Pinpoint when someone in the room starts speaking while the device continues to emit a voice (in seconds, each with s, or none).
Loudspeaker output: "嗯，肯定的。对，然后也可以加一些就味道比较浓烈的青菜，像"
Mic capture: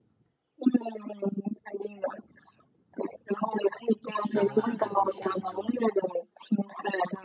4.1 s